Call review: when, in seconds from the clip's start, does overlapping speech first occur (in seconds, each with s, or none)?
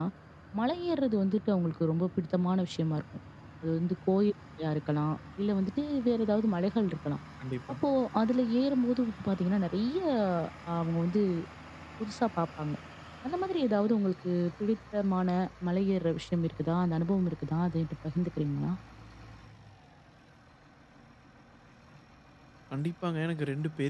none